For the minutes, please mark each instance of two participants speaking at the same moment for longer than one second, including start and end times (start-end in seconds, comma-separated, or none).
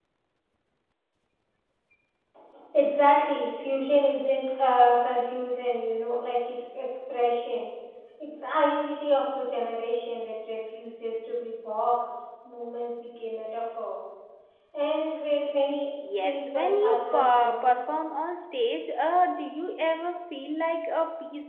16.2-17.7